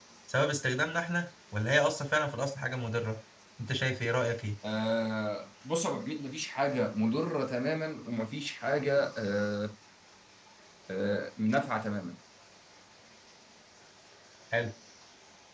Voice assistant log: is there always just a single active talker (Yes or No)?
Yes